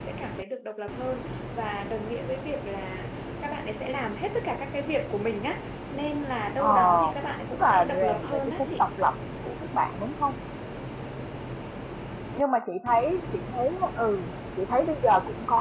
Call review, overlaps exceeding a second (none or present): present